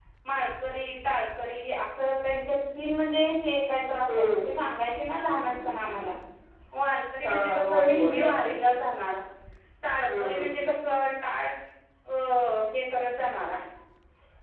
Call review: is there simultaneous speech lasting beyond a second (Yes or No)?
Yes